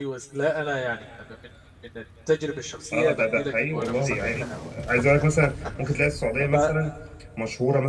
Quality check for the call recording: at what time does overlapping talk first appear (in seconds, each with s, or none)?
2.9 s